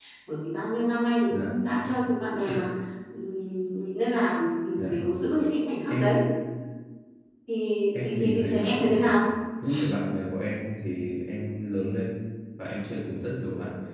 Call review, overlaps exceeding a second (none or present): present